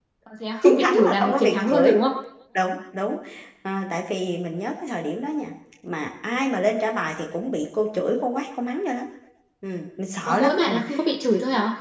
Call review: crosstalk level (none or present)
present